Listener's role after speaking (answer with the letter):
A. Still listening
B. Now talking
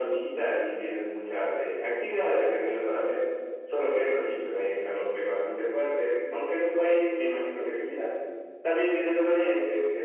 A